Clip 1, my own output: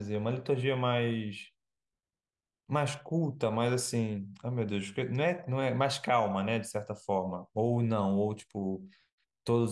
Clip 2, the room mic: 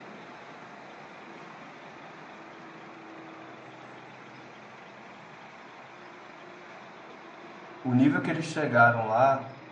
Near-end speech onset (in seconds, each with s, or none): 7.8 s